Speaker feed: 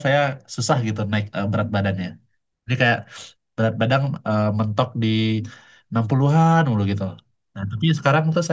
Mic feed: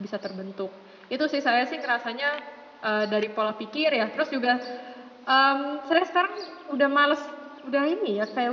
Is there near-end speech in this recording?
Yes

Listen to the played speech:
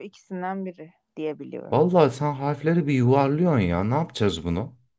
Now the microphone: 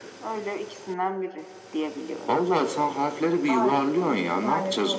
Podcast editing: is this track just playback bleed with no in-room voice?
No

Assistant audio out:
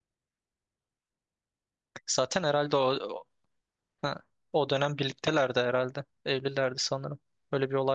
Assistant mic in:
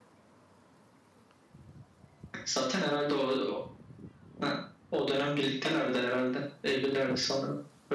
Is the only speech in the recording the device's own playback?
Yes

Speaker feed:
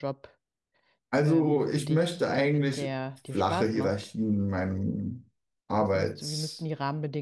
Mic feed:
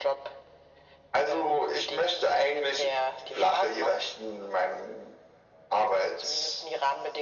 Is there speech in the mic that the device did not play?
No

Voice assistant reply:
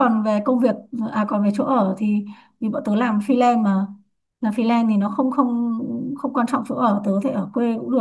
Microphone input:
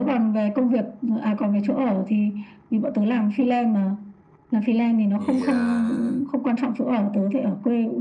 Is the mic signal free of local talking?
No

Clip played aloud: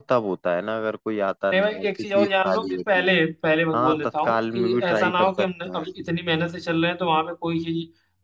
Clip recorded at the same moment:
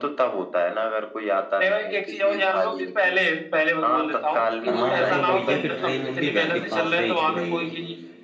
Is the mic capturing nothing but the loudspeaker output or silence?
No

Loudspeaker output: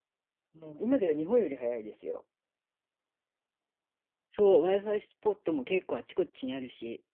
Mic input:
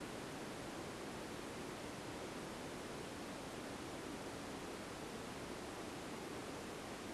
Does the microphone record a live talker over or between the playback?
No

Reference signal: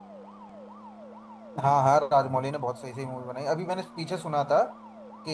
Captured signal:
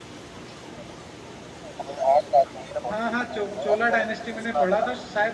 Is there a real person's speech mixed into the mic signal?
Yes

